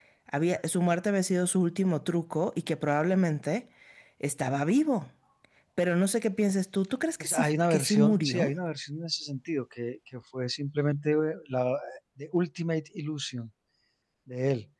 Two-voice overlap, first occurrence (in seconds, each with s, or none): 7.2 s